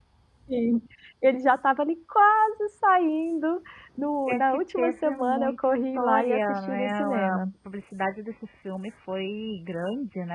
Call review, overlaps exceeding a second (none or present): present